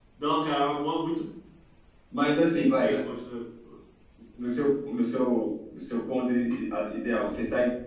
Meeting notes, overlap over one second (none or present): none